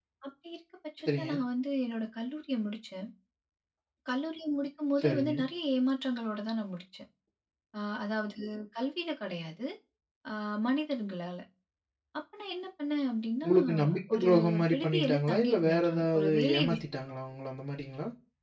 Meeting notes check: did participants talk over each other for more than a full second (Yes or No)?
Yes